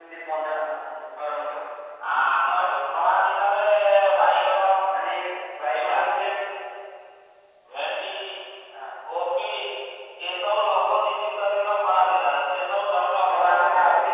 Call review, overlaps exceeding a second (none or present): present